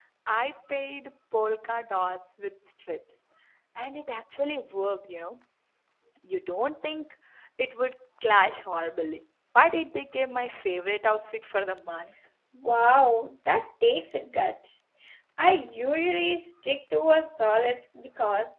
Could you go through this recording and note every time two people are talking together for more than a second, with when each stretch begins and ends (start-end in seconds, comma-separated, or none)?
none